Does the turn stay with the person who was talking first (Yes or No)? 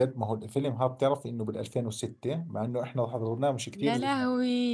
No